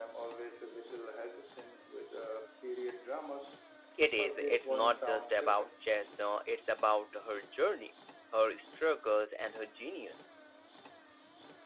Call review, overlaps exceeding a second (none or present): present